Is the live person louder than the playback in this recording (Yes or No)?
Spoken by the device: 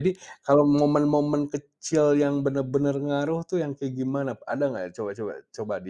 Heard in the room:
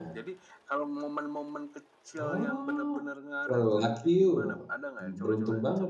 Yes